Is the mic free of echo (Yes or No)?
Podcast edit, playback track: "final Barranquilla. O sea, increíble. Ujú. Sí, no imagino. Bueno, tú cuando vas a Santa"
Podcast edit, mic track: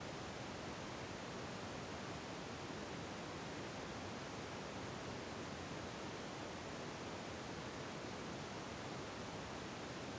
Yes